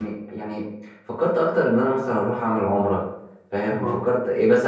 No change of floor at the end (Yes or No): Yes